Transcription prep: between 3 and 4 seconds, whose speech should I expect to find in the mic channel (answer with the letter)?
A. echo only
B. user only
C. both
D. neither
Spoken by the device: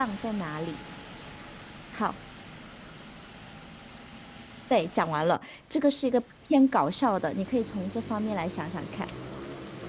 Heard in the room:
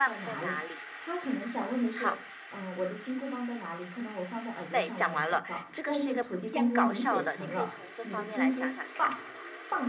B